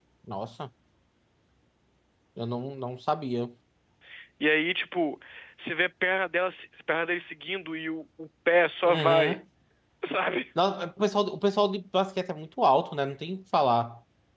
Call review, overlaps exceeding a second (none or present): none